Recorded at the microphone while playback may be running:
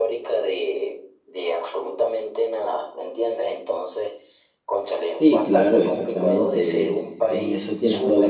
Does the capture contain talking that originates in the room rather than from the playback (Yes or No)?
Yes